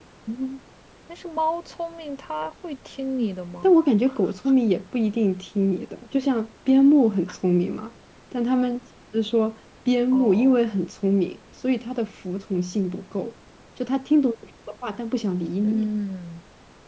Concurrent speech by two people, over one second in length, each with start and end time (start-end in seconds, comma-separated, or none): none